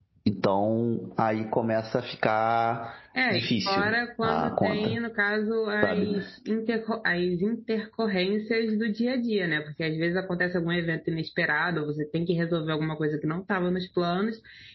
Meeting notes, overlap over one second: present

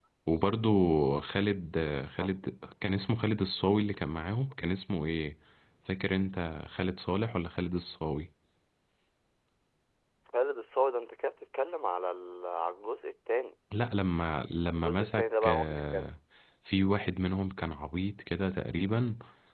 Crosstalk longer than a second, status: present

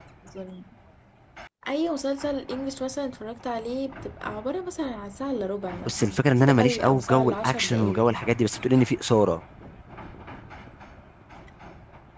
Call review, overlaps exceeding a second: present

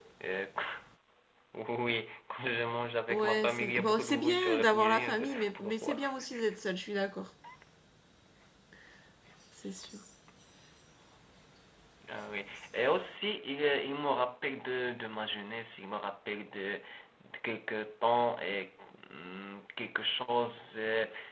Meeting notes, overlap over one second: present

